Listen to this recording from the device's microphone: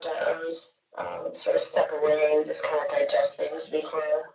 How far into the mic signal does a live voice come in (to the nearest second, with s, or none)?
none